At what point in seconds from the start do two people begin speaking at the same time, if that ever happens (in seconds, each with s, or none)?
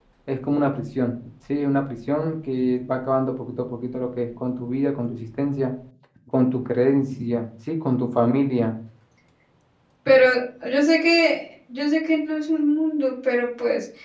none